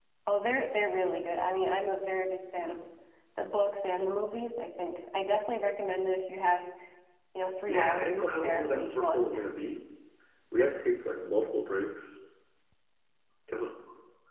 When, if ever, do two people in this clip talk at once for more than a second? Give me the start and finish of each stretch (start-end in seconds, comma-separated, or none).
7.7-9.4